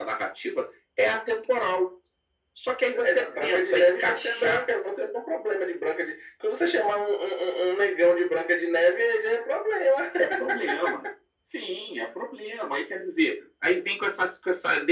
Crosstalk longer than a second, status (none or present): present